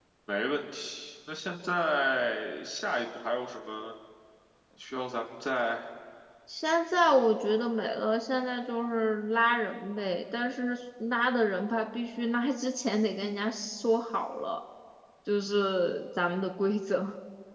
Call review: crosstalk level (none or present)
none